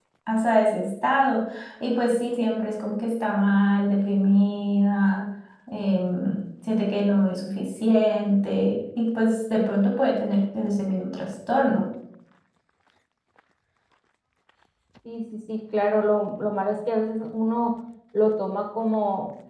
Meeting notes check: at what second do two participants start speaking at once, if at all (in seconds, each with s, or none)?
none